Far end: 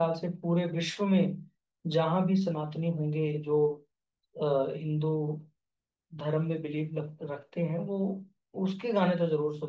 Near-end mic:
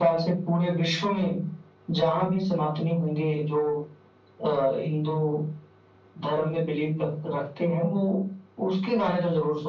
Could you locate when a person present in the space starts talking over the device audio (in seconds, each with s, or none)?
none